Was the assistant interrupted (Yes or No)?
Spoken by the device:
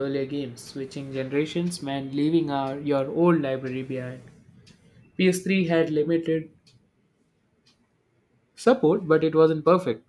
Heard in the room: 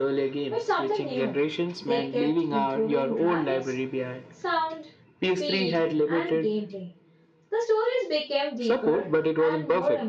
Yes